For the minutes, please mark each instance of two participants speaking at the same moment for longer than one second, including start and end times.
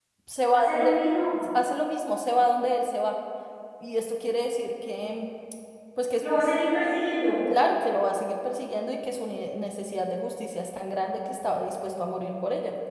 none

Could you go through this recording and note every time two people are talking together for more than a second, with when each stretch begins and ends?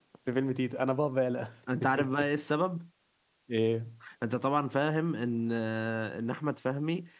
none

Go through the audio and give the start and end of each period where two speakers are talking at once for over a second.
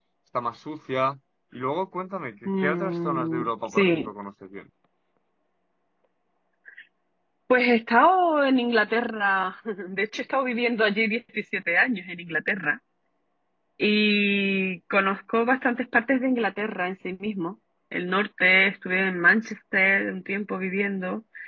2.5-4.1

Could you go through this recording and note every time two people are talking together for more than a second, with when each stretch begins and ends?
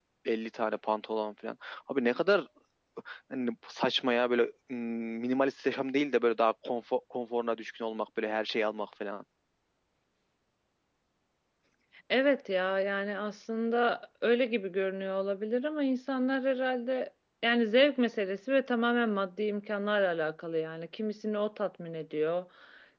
none

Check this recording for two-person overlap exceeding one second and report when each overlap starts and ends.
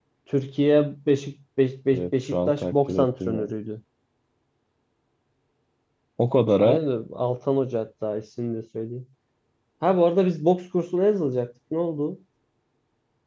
1.9-3.5

